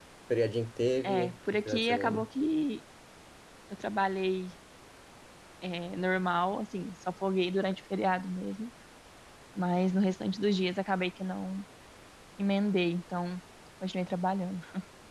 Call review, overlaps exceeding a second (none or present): present